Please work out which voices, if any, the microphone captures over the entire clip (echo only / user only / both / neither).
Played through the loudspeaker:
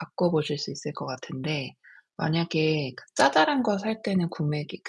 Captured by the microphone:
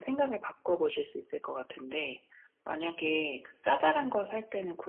echo only